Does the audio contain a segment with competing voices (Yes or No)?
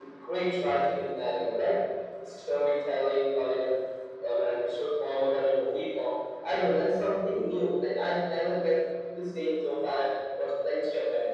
No